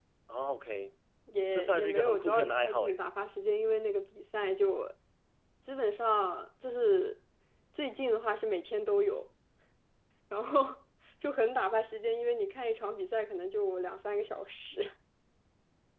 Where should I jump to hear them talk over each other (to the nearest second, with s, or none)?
2 s